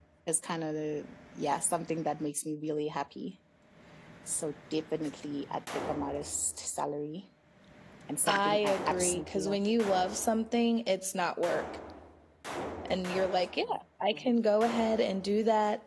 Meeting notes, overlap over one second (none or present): present